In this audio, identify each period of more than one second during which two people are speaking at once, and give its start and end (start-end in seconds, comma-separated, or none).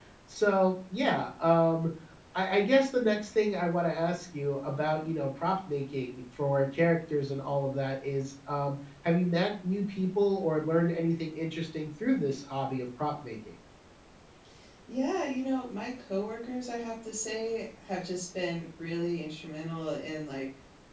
none